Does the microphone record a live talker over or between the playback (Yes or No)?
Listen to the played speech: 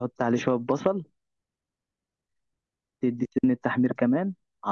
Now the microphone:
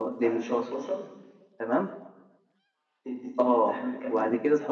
Yes